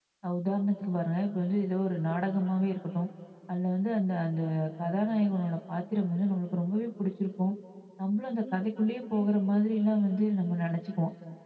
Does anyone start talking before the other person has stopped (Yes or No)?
No